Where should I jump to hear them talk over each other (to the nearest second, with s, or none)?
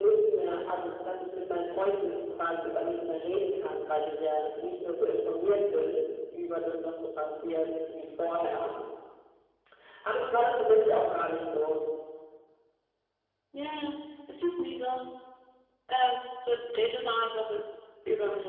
none